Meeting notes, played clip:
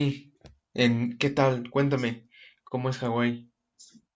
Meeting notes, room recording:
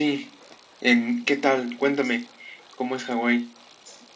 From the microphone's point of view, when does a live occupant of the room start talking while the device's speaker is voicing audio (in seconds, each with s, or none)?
none